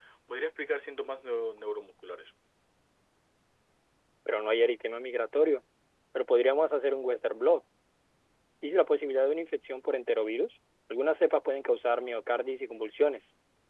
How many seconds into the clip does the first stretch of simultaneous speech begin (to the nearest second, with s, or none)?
none